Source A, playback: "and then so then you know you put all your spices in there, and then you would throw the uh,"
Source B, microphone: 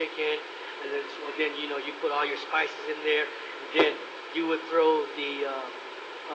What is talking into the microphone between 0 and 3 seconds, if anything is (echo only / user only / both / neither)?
echo only